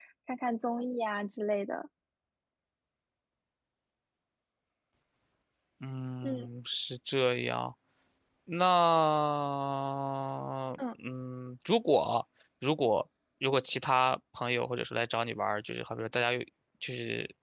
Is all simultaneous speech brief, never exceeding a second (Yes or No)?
Yes